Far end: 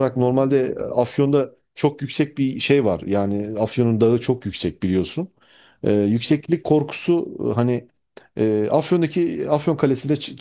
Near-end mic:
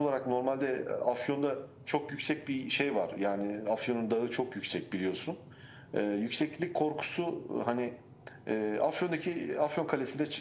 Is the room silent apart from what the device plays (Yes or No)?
Yes